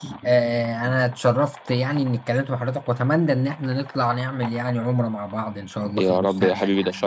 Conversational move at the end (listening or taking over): taking over